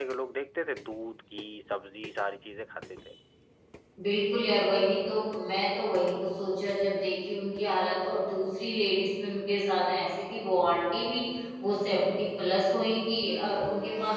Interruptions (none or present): none